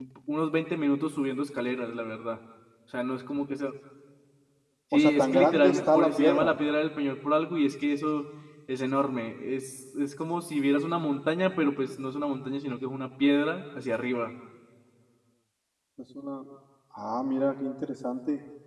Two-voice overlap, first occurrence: 5 s

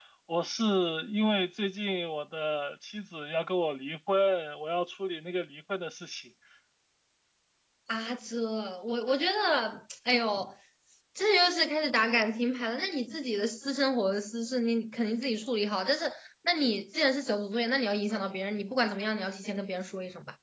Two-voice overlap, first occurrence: none

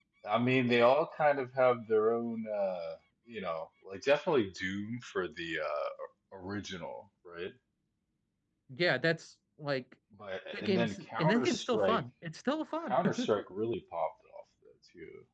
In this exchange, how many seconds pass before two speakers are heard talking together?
11 s

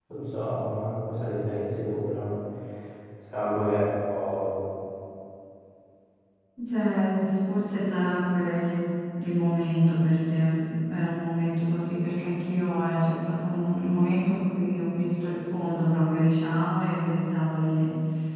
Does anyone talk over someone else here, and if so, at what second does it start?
none

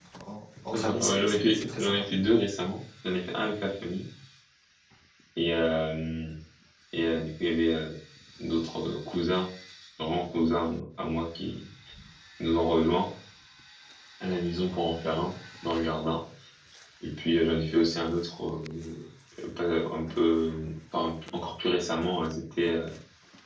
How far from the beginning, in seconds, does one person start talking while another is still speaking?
1 s

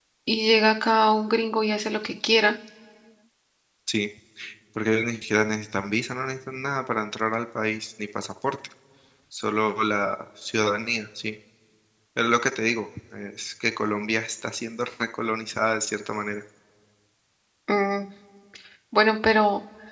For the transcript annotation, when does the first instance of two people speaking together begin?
none

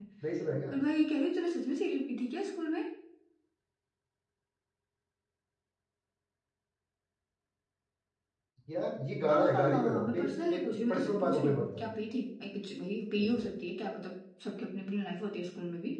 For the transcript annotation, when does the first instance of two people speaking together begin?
9 s

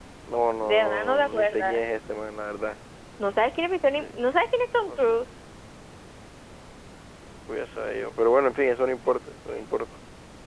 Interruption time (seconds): 1 s

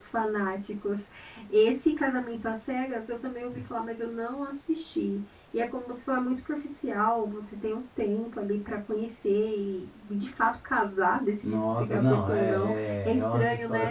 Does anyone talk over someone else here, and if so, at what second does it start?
11 s

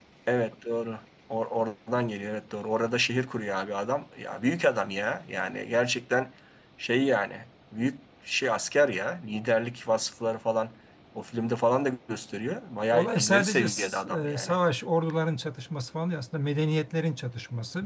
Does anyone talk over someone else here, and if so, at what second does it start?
13 s

